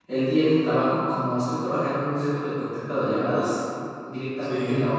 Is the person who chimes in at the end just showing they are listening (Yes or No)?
Yes